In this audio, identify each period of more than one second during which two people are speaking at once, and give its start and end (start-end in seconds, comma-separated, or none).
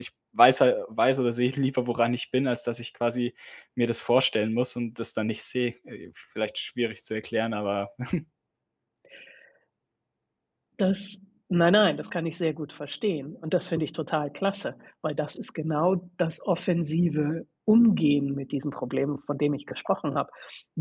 none